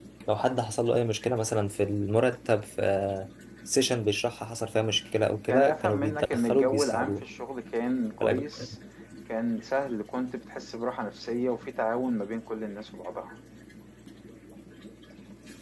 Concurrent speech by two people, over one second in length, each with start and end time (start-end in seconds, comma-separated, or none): 5.5-7.2